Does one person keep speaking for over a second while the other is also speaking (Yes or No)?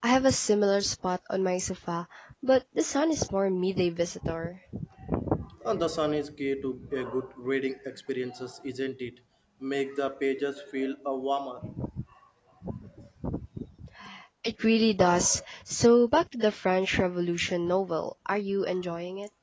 No